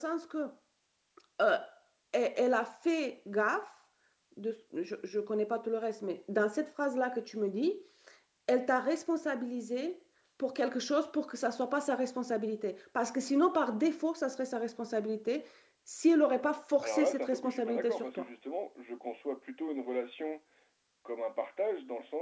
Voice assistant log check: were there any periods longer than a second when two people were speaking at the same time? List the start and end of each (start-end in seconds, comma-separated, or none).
16.8-18.2